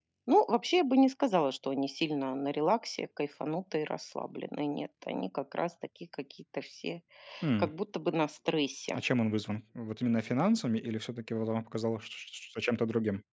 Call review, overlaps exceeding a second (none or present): none